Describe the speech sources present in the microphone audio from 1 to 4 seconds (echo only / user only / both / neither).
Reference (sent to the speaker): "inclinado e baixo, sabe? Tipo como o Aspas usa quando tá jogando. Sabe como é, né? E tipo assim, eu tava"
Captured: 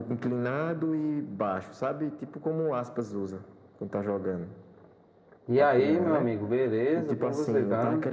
echo only